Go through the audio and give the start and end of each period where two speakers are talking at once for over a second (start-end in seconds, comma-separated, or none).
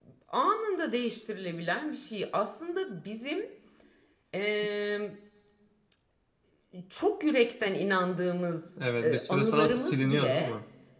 9.0-10.5